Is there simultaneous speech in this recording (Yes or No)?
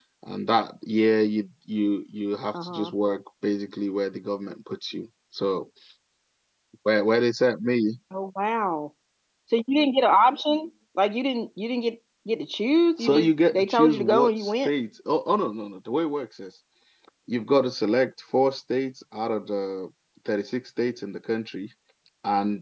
Yes